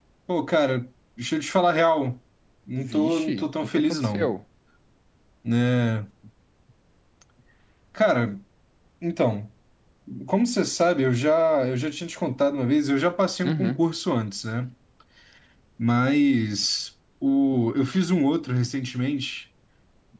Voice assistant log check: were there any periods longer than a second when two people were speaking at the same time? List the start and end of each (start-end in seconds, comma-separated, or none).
2.8-4.3